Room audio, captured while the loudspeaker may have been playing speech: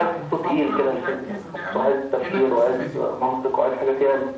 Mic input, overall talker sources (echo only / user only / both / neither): both